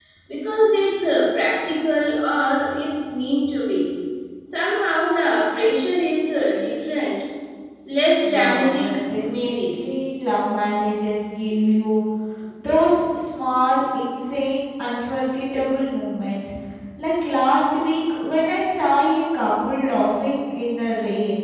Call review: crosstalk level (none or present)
present